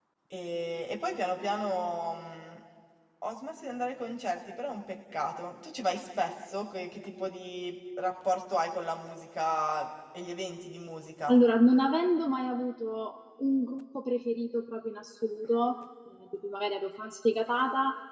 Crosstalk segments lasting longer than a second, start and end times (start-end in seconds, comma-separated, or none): none